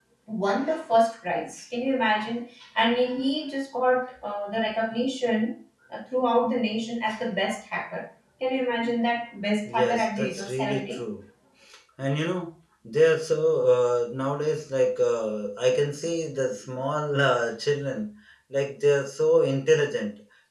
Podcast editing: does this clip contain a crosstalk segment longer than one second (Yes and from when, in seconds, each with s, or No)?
Yes, from 9.7 s